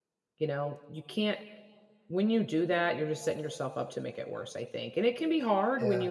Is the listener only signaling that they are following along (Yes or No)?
Yes